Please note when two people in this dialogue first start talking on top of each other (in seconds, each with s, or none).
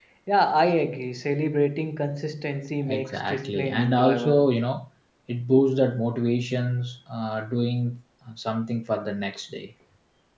2.8 s